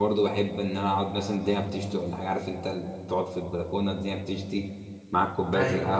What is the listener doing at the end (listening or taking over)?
listening